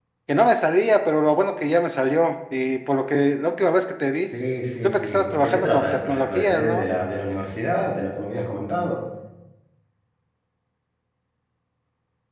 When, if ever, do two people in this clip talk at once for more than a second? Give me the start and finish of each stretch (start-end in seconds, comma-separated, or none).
4.8-6.8